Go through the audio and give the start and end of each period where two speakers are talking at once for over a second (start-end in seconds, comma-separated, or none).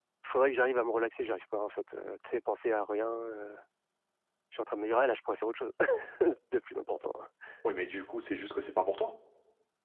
none